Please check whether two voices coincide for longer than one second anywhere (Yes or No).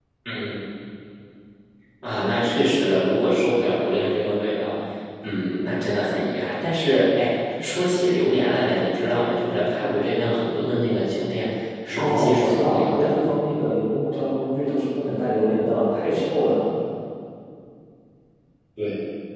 Yes